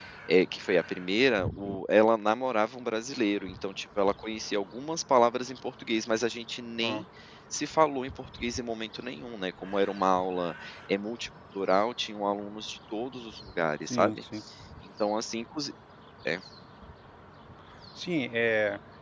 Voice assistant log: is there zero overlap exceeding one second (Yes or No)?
Yes